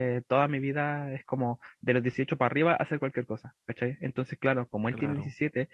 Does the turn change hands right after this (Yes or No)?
No